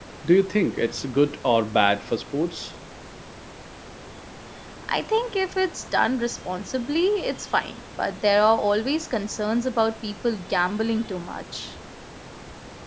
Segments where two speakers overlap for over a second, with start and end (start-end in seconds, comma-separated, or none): none